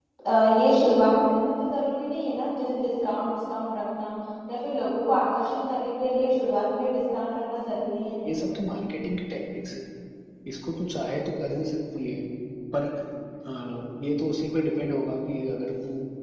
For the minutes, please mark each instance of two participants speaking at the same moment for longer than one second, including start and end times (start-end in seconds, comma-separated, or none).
none